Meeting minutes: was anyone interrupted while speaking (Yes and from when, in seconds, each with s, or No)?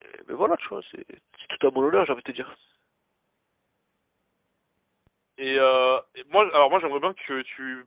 No